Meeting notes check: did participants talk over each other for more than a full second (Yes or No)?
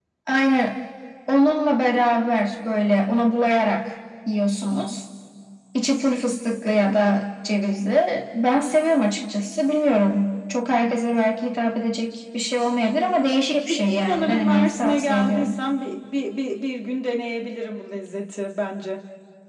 Yes